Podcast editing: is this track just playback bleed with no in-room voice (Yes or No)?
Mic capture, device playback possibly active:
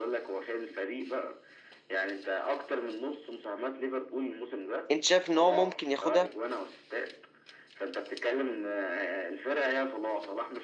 No